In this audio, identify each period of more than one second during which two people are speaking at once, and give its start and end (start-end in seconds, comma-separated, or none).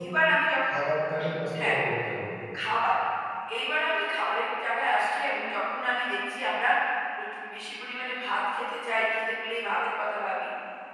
none